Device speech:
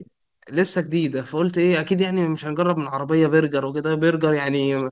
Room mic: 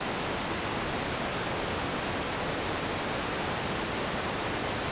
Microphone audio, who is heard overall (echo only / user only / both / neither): neither